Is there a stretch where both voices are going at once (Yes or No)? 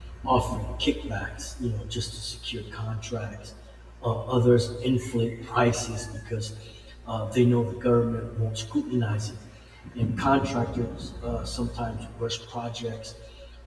No